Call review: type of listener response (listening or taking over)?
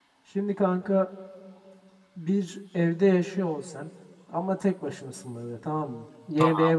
listening